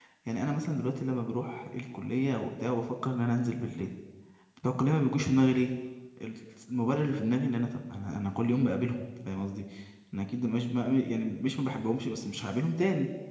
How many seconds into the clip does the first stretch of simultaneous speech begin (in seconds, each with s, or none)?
none